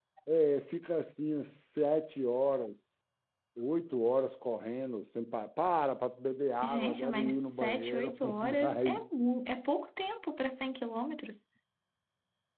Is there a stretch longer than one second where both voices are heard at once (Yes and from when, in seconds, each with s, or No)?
Yes, from 6.6 s